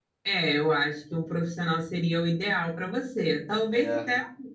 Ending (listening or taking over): listening